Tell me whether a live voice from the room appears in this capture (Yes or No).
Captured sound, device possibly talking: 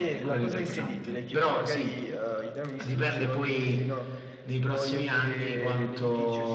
No